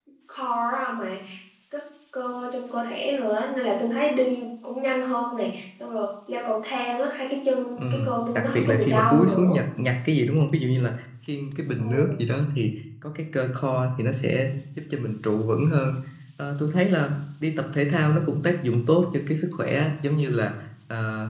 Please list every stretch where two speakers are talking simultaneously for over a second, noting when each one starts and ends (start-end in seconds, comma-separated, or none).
7.8-9.6